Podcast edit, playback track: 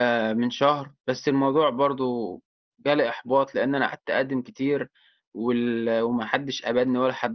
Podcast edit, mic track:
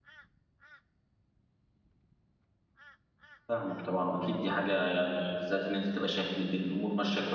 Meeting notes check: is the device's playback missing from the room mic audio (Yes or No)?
Yes